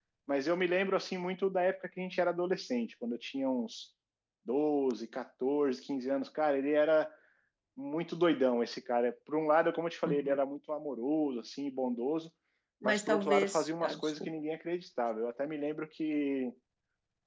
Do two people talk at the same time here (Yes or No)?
Yes